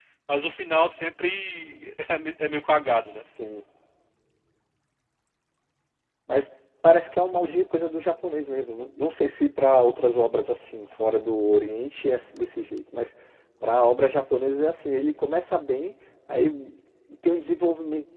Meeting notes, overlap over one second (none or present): none